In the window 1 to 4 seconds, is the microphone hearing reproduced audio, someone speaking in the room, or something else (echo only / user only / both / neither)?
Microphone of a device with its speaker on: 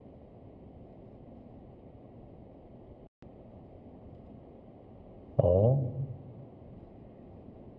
neither